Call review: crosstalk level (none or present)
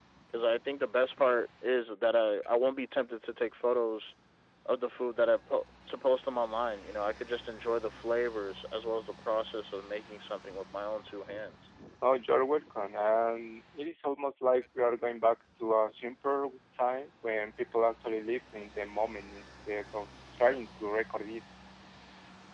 none